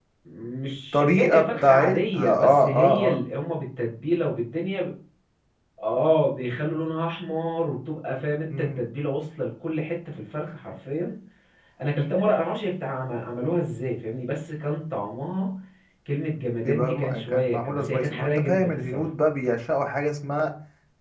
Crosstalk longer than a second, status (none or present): present